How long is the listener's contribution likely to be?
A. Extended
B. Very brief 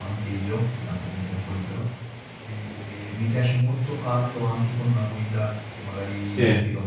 B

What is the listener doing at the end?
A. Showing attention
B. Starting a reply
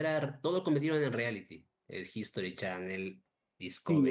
B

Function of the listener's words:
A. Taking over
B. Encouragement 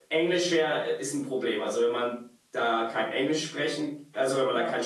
B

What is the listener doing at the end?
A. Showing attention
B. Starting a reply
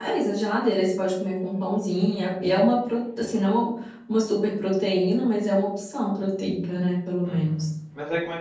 B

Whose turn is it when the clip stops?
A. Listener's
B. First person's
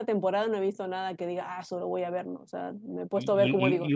A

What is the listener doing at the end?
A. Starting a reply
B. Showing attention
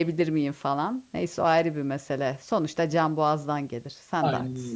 A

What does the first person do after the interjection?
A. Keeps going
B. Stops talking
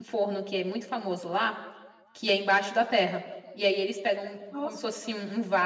A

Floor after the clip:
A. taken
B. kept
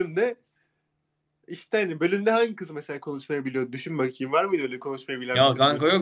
A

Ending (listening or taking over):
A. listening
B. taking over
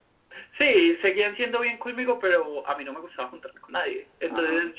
A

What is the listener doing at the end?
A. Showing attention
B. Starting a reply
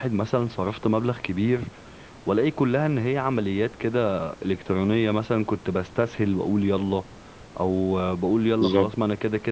A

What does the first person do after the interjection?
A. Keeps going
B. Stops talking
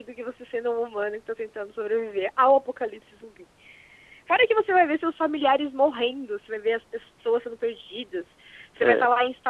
A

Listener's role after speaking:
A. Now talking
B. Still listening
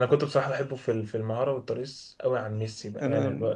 B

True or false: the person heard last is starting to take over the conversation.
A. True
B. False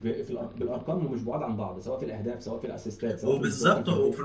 A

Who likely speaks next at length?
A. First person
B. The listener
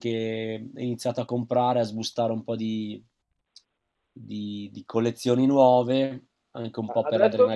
B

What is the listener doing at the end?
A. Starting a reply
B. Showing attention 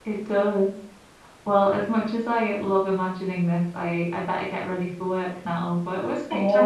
A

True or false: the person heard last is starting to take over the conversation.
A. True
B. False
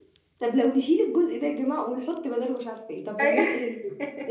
B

